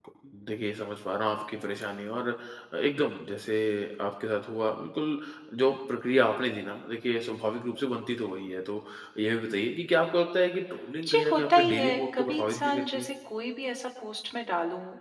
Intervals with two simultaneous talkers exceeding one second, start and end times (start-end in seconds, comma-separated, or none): 11.1-13.1